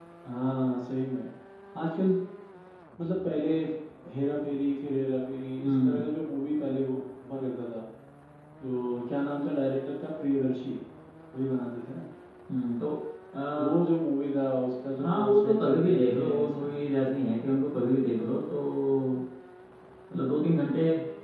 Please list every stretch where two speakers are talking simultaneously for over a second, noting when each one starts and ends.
15.0-16.9

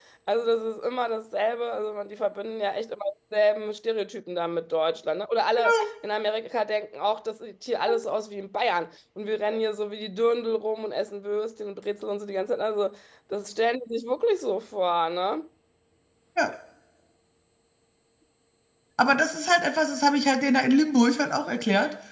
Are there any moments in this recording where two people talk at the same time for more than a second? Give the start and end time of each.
none

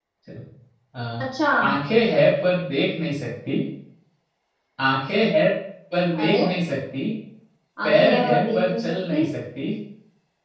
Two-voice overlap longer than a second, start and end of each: 7.8-9.2

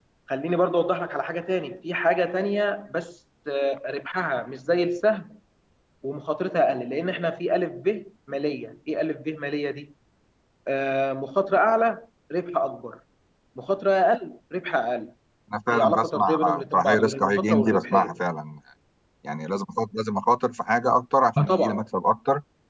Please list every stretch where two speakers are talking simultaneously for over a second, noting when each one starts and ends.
15.7-18.2

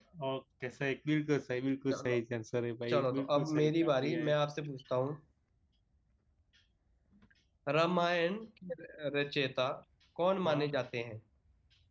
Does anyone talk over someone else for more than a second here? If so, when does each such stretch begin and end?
2.9-4.3

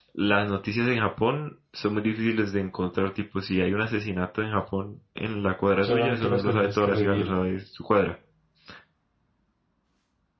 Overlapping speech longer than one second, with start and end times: 5.8-7.4

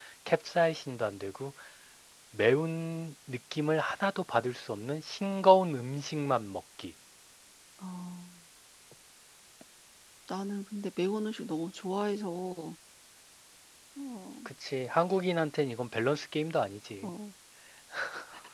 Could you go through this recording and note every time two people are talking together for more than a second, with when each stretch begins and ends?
none

